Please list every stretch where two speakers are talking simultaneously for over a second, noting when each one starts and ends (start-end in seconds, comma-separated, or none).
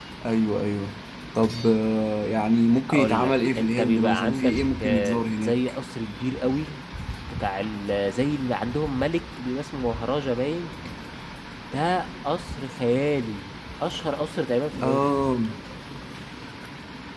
2.9-5.5